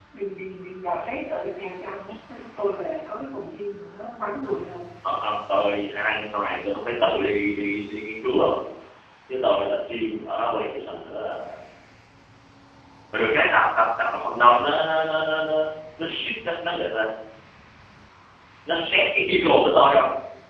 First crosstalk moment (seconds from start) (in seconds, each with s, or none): none